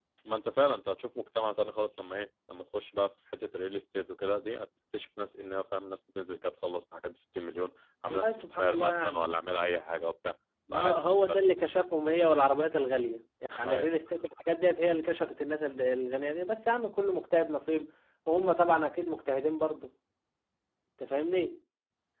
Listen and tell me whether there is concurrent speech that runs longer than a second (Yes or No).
Yes